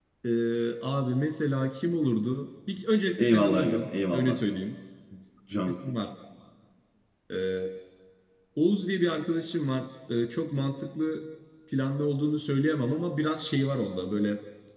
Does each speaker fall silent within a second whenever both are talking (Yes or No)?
No